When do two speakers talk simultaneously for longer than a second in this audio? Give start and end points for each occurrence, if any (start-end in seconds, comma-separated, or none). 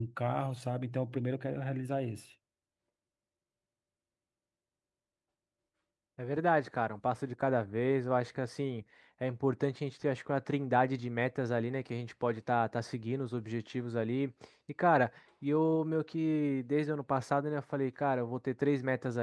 none